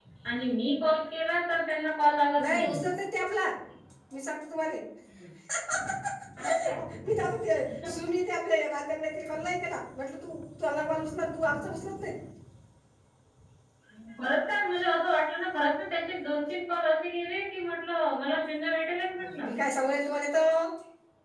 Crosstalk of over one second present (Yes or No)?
No